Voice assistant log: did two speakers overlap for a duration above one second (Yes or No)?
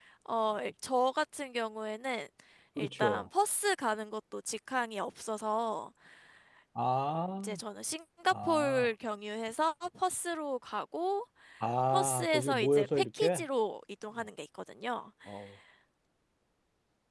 Yes